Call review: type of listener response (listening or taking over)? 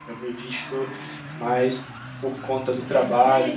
listening